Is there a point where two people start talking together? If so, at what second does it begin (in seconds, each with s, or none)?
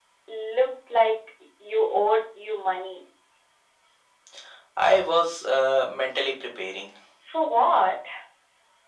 none